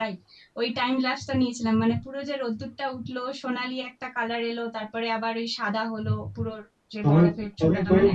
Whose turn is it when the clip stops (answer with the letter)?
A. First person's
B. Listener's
B